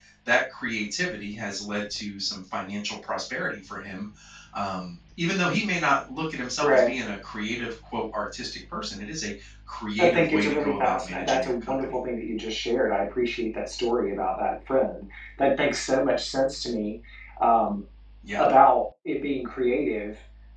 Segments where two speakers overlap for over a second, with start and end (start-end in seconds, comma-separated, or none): 10.0-12.0